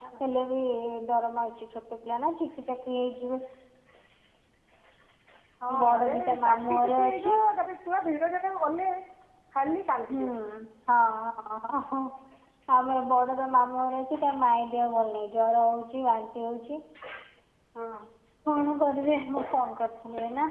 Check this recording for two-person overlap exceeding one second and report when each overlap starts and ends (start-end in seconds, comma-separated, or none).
5.8-7.3